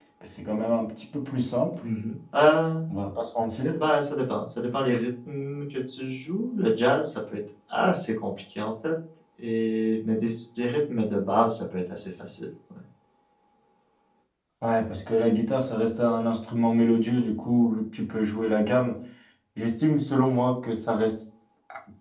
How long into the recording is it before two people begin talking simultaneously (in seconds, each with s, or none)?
none